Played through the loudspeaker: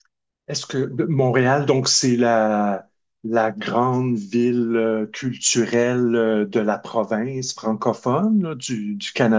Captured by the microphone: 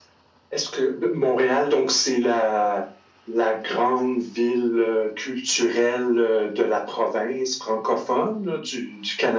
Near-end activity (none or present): none